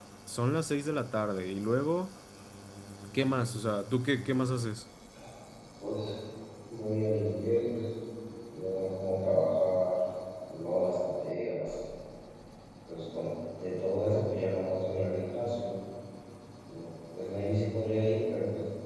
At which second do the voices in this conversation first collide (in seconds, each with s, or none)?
none